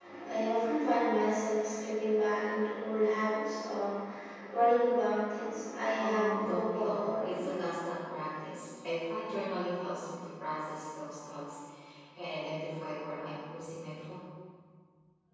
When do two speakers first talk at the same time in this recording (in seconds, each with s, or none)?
6.0 s